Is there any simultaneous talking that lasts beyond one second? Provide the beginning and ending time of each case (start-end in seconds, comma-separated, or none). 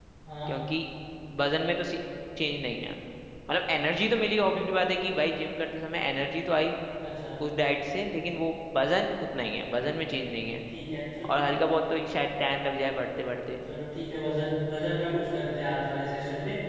none